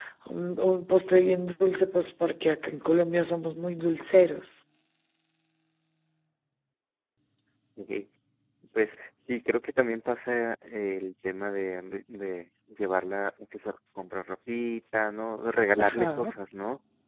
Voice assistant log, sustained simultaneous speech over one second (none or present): none